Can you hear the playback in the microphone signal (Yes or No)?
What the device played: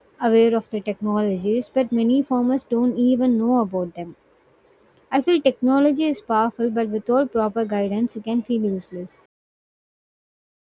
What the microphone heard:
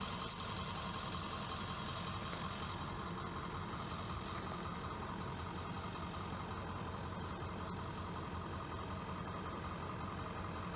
No